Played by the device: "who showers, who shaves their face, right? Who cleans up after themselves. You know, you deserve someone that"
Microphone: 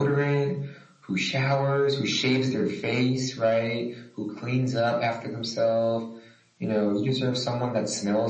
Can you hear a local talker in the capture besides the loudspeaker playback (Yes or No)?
No